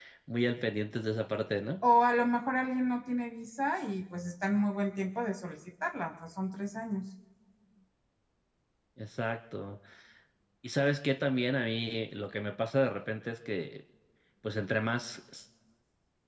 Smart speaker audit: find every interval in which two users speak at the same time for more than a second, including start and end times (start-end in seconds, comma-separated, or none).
none